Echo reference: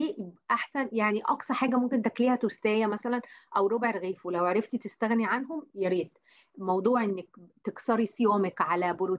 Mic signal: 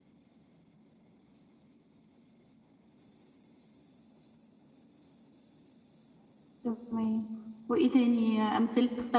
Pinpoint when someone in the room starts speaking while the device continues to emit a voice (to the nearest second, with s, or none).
7 s